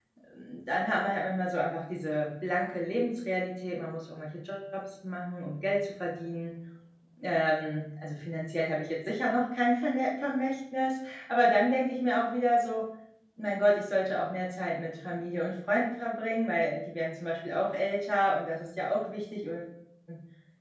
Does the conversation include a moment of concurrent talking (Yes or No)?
No